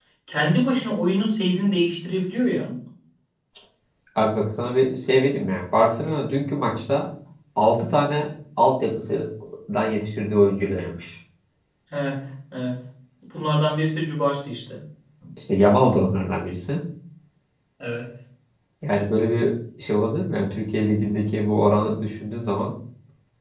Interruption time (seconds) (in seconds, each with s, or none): none